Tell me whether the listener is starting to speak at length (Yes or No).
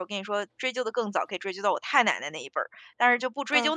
No